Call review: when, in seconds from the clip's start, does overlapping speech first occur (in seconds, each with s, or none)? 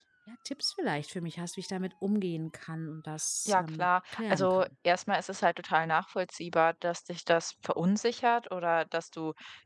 3.4 s